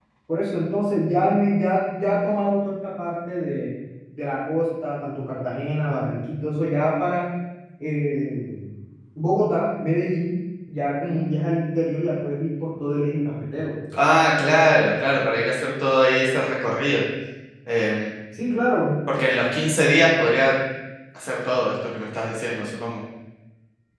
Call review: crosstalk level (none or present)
none